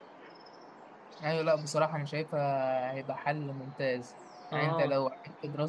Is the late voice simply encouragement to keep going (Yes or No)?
Yes